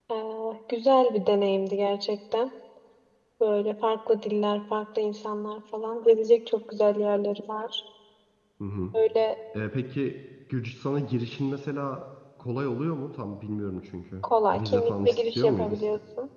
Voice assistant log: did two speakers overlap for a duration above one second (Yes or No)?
Yes